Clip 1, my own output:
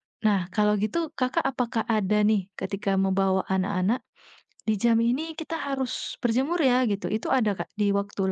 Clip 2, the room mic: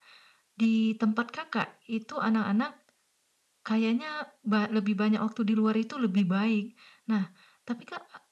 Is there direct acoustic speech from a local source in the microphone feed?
Yes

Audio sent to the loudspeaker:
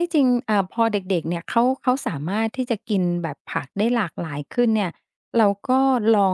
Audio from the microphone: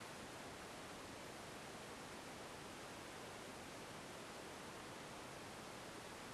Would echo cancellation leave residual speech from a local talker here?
No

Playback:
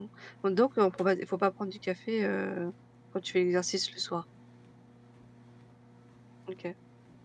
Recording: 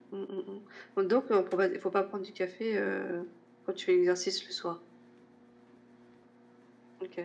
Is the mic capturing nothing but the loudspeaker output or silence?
Yes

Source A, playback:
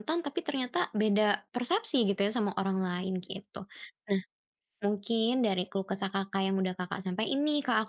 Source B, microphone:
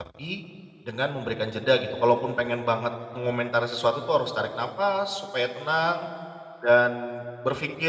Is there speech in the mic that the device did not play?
Yes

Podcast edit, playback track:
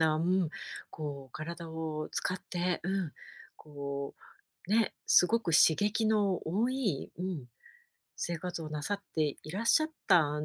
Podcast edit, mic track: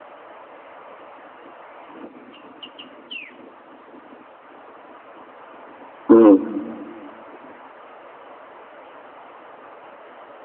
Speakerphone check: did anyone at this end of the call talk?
Yes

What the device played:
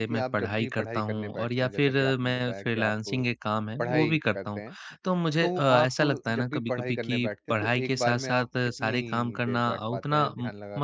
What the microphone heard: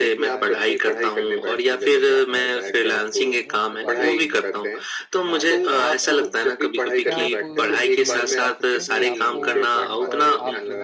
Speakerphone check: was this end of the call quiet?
No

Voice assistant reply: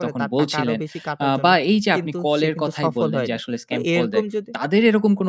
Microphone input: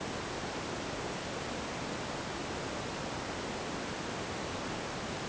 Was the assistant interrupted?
No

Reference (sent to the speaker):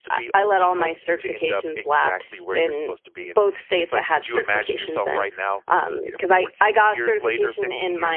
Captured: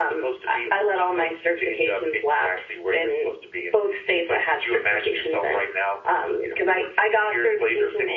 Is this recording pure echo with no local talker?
Yes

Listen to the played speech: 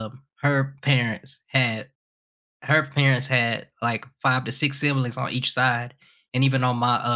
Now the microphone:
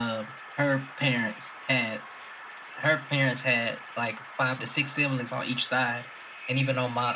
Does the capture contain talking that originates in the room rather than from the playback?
No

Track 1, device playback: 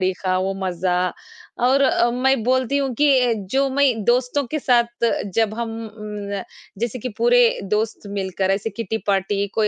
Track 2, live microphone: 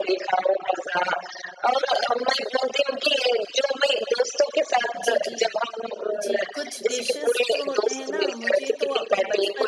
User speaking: Yes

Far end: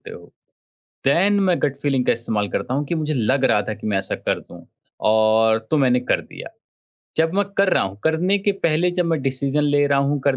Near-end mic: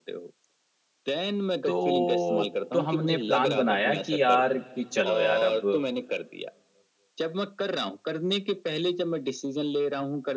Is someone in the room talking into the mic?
Yes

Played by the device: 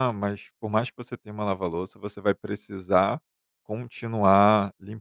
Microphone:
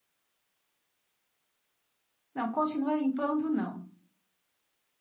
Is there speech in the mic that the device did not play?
Yes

